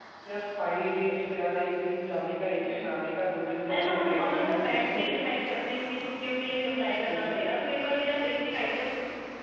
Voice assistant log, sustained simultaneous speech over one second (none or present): present